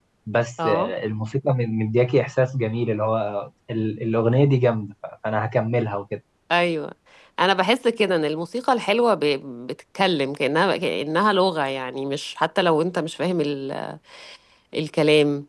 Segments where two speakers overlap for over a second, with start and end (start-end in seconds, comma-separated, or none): none